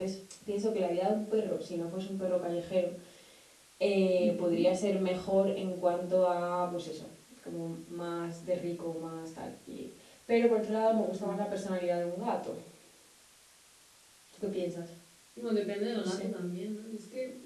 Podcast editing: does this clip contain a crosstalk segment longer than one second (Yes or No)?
No